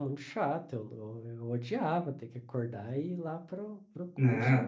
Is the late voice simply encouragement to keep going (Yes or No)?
No